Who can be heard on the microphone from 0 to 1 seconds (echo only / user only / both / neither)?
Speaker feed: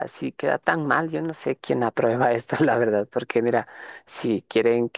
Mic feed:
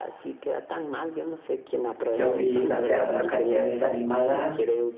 echo only